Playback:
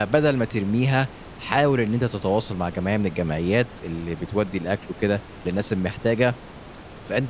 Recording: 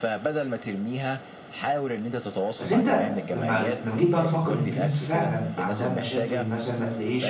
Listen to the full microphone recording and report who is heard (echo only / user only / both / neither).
both